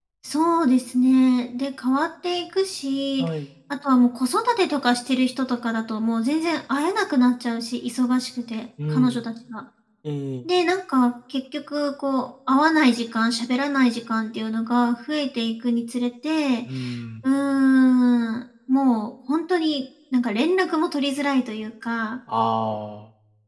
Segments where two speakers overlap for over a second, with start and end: none

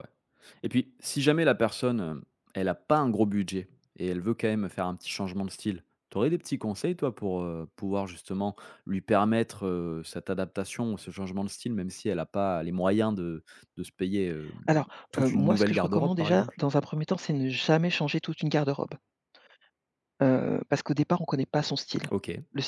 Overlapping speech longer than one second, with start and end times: 15.2-16.5

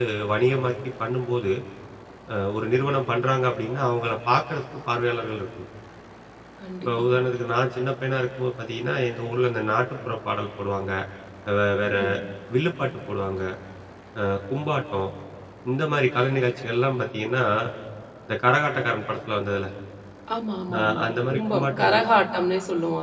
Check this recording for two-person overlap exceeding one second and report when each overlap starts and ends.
20.8-22.0

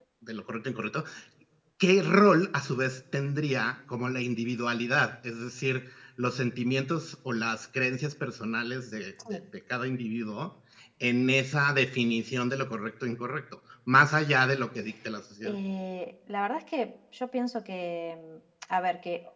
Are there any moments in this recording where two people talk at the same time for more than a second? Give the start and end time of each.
none

